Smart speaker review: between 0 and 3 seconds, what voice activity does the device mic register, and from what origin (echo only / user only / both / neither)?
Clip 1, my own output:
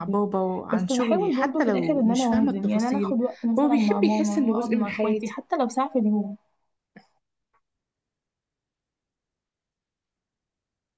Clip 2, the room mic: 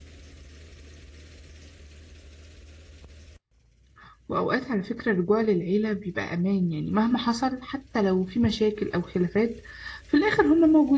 neither